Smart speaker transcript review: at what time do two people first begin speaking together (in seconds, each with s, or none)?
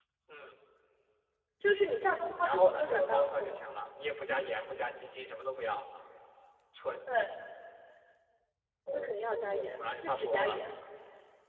2.0 s